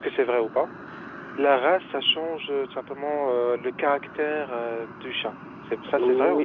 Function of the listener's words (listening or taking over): taking over